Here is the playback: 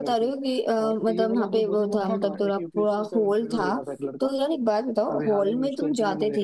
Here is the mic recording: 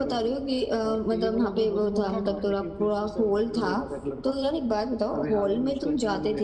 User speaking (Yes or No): No